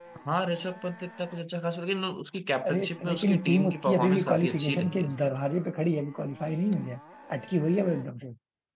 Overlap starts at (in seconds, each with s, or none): 2.6 s